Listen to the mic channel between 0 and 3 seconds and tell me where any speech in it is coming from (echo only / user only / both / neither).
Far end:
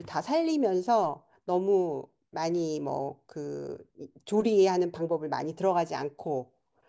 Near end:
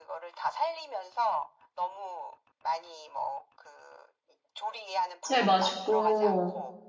echo only